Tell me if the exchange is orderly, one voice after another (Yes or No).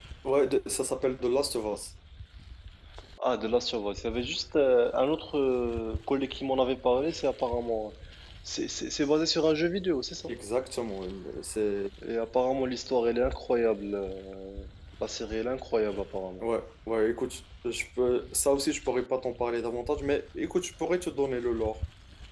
Yes